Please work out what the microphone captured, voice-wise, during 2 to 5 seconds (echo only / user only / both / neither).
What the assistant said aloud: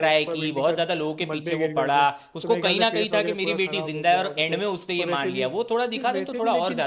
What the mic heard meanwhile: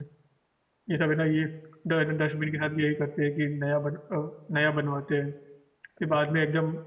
user only